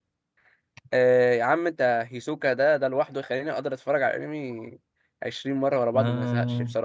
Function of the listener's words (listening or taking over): taking over